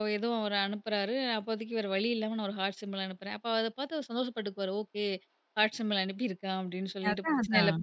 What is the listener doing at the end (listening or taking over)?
listening